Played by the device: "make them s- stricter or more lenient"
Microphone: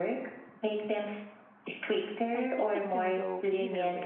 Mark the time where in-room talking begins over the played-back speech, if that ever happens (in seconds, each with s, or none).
2.3 s